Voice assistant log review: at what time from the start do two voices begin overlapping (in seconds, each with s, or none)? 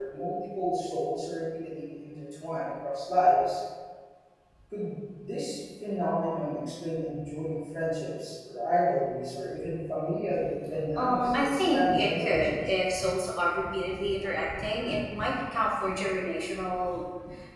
10.7 s